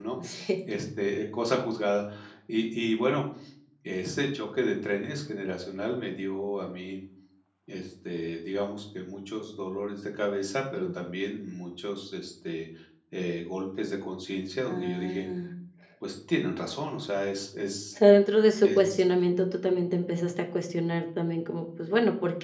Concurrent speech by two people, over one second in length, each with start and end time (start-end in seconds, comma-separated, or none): none